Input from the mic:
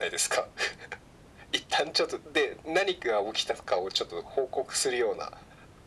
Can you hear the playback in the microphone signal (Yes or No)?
Yes